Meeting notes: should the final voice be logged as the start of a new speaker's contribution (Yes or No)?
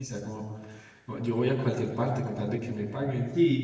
Yes